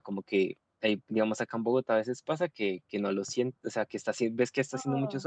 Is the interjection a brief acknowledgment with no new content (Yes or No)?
Yes